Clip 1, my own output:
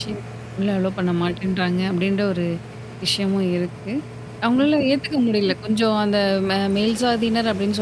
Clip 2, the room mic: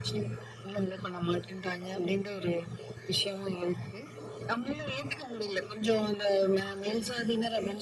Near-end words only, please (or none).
none